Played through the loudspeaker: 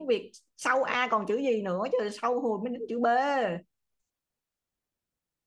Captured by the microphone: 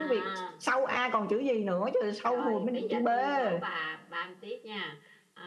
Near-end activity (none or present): present